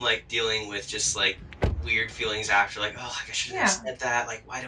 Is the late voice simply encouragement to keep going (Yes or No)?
Yes